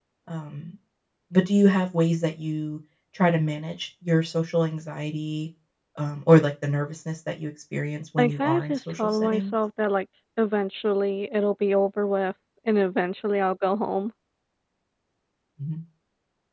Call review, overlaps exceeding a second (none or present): present